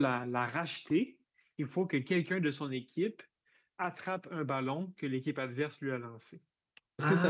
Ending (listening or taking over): taking over